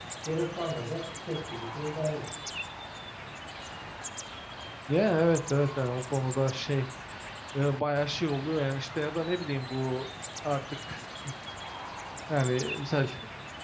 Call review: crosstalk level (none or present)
none